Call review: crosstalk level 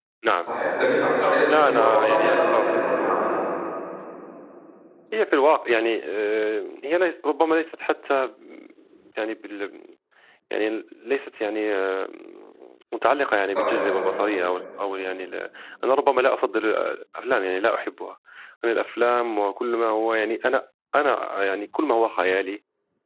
present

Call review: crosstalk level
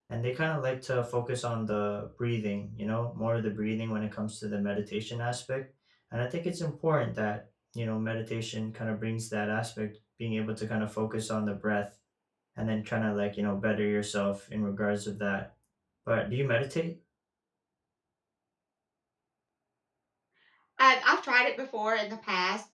none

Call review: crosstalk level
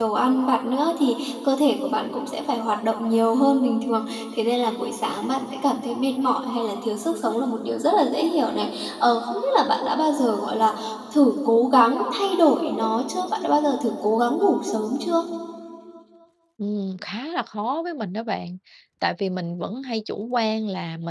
none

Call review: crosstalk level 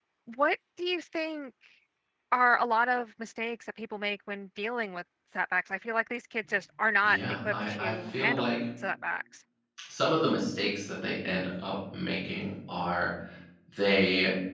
present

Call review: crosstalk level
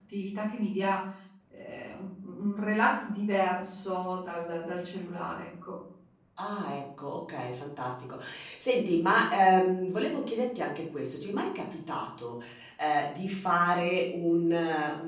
none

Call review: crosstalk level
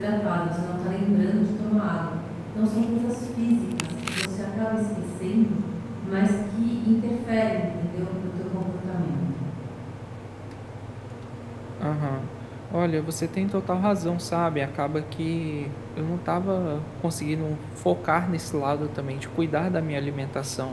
none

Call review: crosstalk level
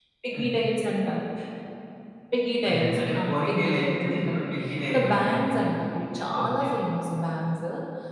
present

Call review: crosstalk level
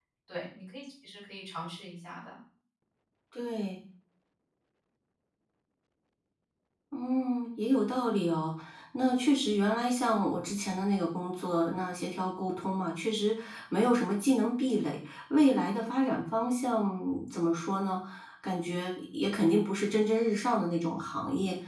none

